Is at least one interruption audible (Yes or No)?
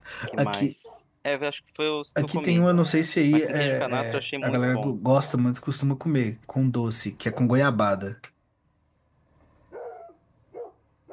Yes